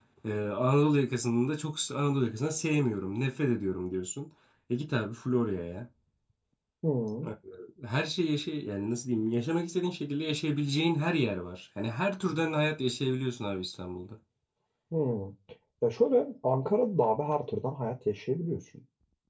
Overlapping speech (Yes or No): No